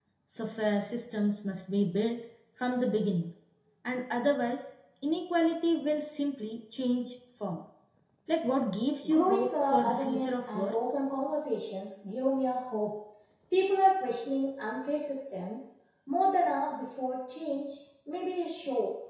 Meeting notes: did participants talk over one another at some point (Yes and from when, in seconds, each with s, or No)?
Yes, from 9.1 s